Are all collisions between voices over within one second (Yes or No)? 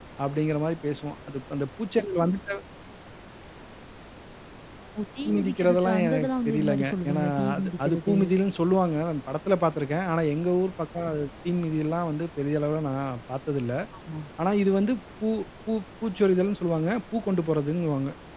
No